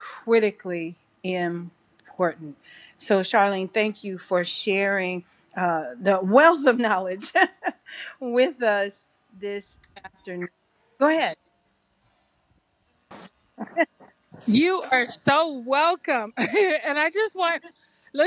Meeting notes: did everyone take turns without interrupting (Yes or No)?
Yes